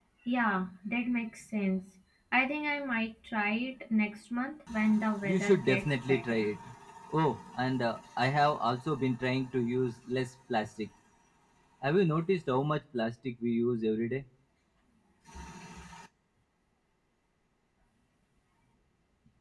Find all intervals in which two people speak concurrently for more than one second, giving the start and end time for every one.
5.2-6.5

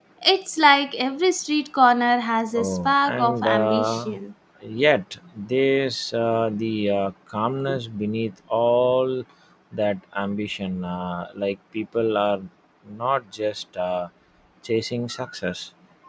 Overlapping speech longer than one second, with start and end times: 2.5-4.1

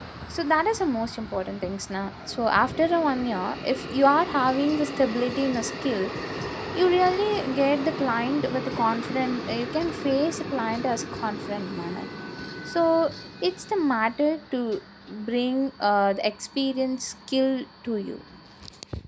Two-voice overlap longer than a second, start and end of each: none

